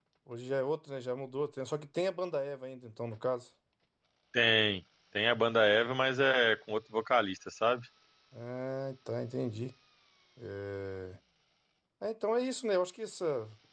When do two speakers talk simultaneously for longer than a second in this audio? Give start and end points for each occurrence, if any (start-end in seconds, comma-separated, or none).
none